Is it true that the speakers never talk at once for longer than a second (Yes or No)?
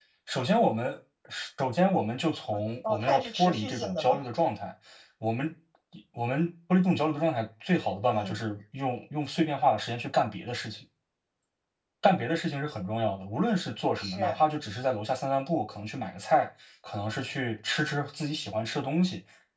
No